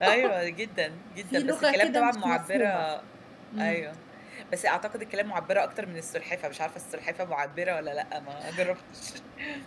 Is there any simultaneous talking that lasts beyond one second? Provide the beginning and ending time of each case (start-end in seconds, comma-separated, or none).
1.3-2.9